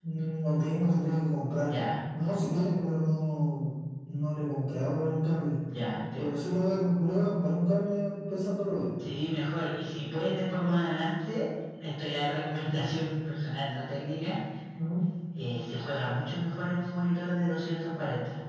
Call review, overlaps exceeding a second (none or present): none